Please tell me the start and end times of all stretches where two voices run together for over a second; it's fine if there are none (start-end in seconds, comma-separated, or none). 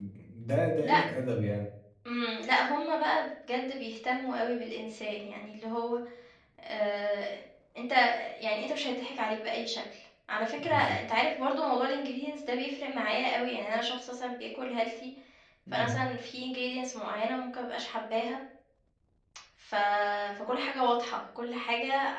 none